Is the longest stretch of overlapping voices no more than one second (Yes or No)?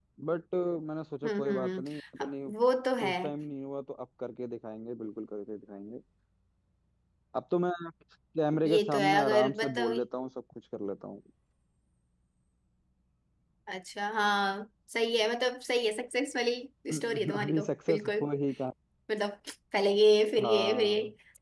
No